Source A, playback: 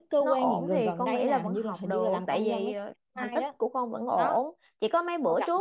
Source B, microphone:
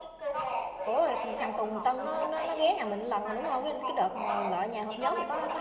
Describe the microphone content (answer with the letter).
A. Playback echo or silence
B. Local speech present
B